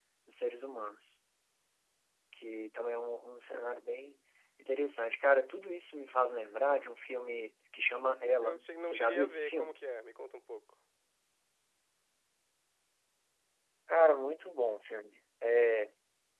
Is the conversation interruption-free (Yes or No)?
No